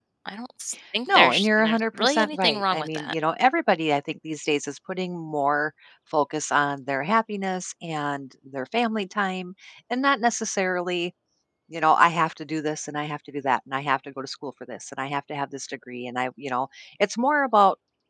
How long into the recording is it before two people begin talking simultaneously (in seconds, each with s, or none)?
1.1 s